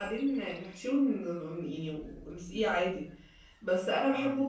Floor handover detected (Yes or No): No